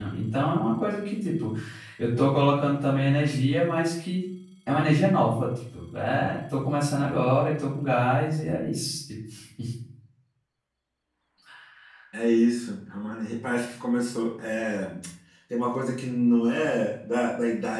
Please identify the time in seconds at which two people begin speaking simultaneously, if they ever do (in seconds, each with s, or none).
none